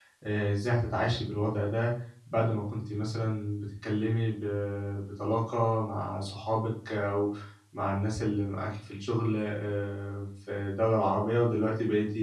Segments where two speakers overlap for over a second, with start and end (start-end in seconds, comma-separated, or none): none